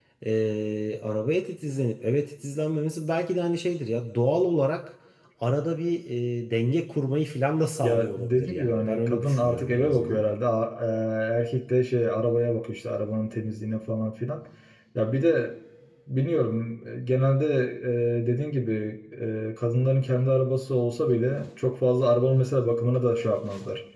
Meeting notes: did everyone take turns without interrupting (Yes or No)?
No